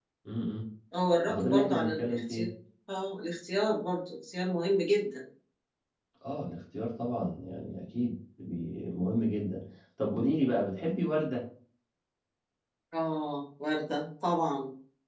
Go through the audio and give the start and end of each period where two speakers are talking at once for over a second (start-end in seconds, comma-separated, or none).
1.3-2.5